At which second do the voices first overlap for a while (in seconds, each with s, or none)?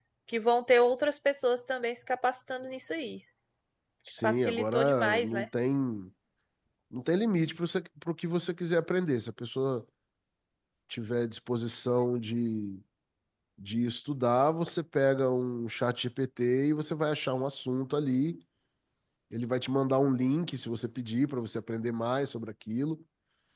4.2 s